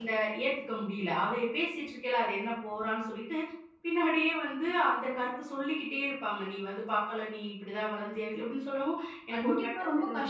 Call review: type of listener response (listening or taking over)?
taking over